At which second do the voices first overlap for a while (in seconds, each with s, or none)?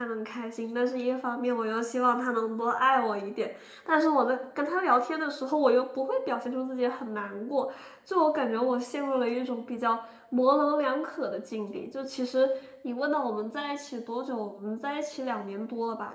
none